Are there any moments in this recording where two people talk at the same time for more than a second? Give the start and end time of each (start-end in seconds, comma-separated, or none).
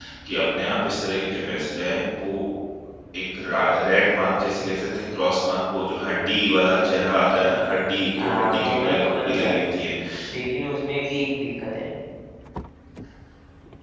8.2-9.5